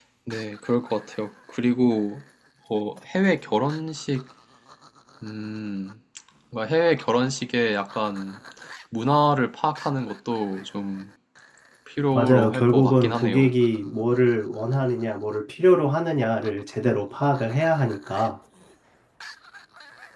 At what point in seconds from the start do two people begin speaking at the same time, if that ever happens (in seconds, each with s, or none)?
12.1 s